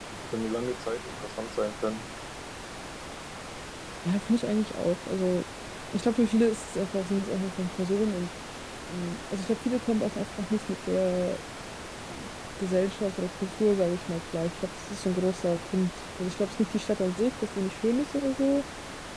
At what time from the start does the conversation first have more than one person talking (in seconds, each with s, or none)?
none